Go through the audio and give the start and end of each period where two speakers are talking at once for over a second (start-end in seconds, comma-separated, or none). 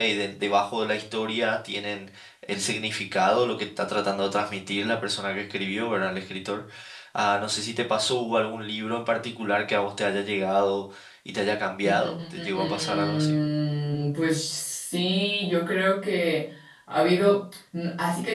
11.8-13.4